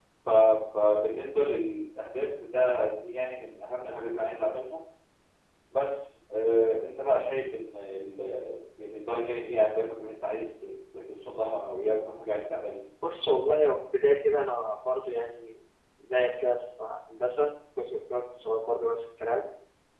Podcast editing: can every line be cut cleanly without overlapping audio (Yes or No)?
Yes